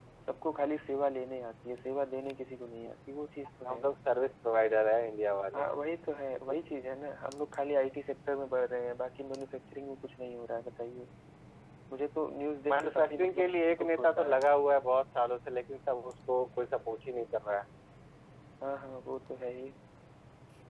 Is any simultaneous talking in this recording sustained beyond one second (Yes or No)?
Yes